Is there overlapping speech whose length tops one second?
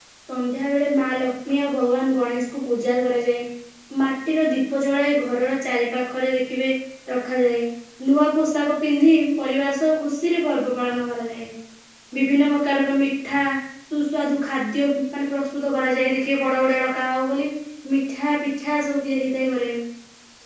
No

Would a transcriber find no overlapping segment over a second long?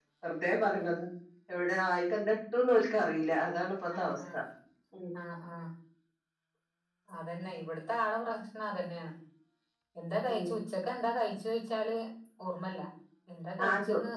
Yes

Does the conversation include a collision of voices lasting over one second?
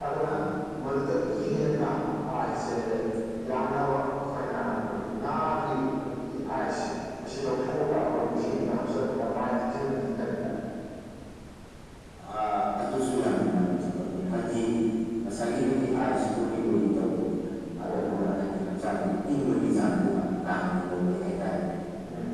No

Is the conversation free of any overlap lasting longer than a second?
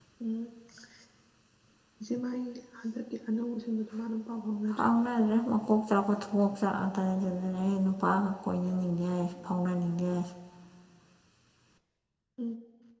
Yes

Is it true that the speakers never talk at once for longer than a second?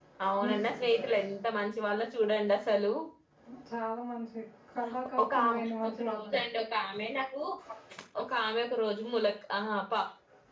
No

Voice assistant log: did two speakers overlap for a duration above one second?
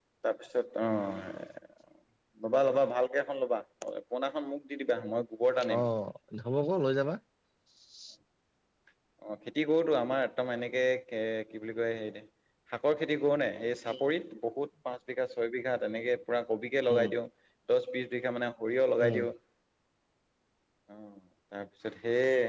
No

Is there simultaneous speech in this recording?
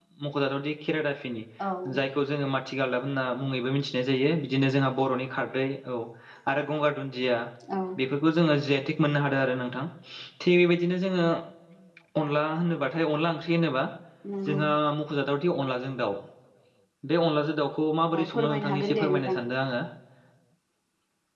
Yes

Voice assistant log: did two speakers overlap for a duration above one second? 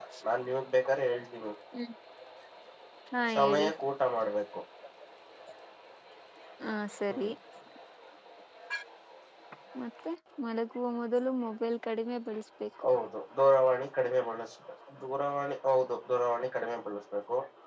No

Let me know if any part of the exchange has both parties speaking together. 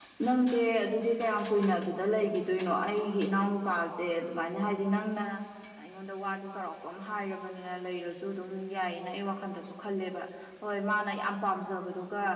No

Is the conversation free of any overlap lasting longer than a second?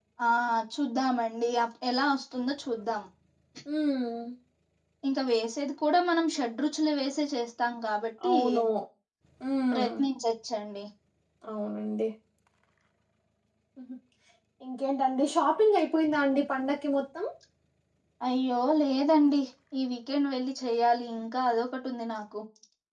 Yes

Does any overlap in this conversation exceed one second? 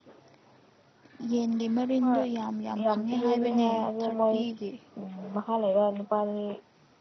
Yes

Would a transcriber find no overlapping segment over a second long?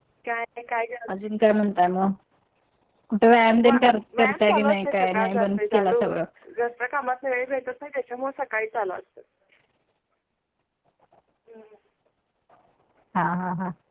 No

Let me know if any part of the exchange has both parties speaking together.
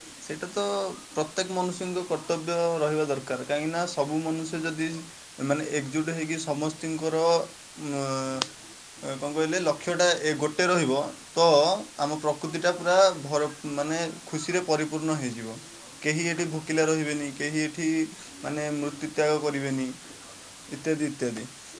No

